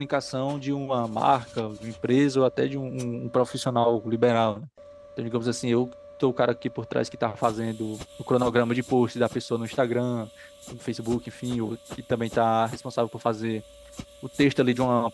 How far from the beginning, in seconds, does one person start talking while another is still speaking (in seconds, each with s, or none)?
none